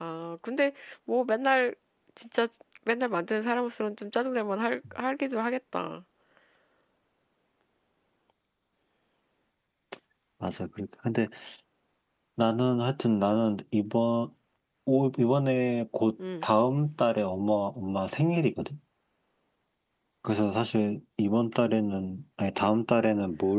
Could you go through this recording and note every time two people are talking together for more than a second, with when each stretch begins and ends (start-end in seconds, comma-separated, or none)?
none